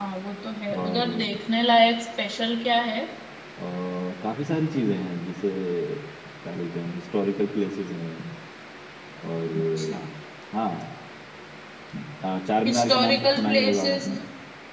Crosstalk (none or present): present